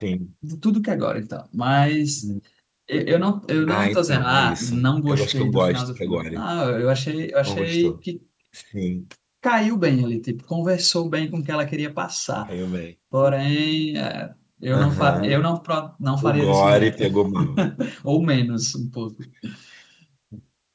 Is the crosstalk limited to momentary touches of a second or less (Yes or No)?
No